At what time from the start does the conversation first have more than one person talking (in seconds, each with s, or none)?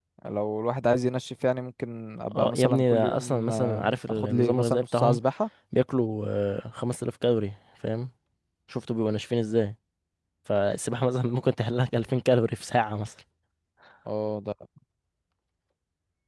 2.3 s